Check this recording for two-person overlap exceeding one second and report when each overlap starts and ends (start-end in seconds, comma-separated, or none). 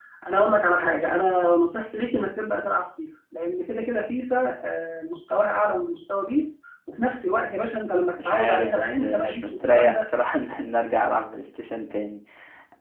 8.2-10.0